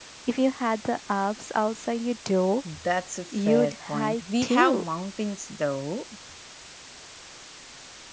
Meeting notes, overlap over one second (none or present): present